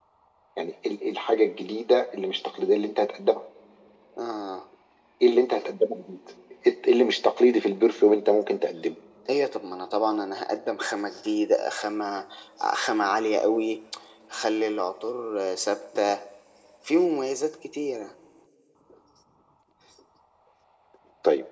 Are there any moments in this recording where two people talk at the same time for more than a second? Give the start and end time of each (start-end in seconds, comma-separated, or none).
none